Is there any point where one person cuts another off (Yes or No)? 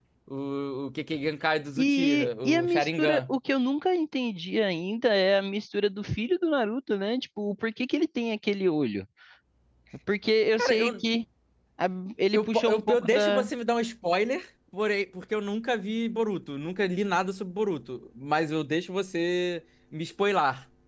Yes